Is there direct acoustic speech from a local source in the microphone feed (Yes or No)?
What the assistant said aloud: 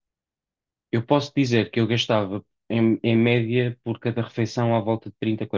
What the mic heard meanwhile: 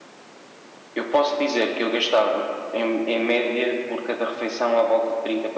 No